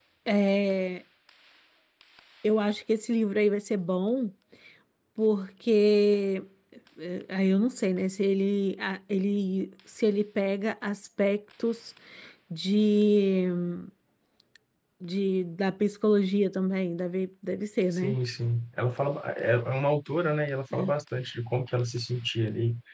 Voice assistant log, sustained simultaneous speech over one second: none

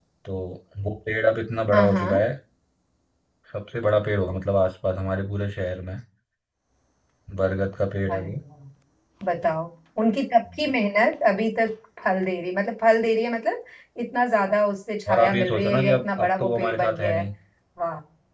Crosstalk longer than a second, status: present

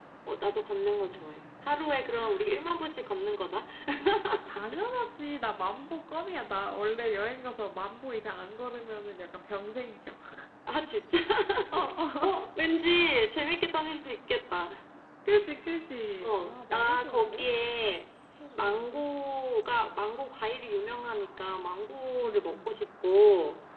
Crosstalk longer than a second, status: present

